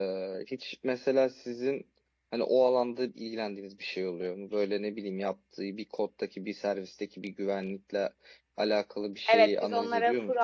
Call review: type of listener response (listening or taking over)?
taking over